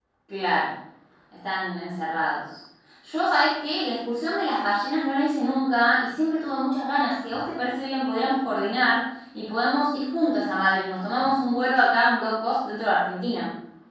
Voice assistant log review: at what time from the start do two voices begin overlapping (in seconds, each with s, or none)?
none